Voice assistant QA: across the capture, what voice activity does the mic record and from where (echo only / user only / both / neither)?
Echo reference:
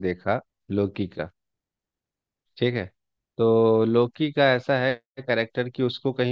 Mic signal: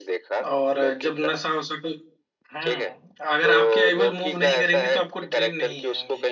both